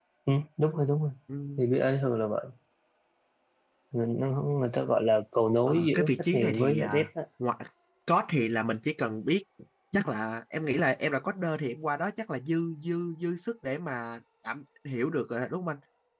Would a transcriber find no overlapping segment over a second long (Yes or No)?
No